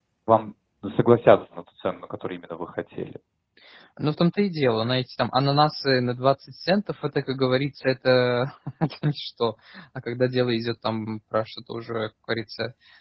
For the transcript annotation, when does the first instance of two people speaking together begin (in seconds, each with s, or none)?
none